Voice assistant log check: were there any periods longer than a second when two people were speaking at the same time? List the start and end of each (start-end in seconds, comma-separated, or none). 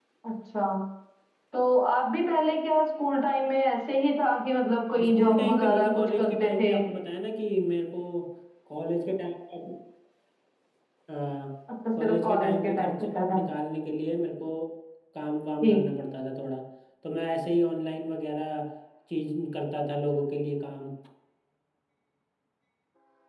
5.1-6.7, 12.0-13.4